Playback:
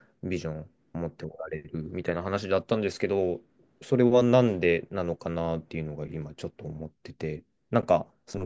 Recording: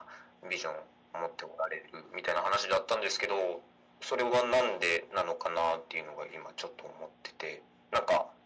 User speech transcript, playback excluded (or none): none